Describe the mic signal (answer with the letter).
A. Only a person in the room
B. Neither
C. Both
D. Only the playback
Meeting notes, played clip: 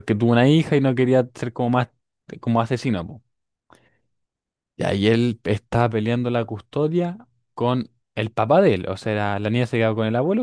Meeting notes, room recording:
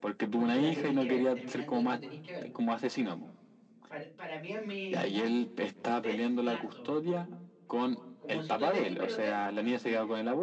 C